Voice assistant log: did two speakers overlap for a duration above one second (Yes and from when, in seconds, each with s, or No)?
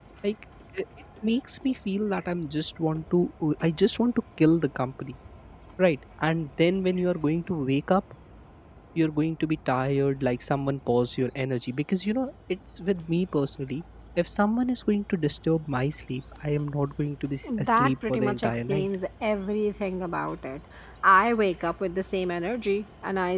Yes, from 17.4 s